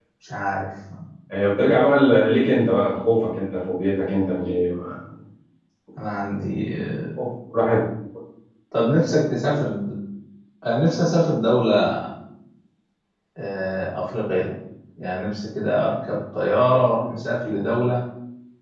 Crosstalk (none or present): none